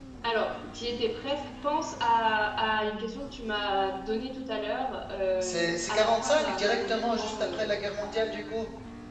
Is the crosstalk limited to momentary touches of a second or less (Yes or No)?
No